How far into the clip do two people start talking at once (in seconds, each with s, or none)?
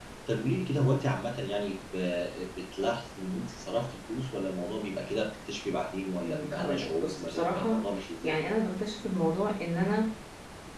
6.2 s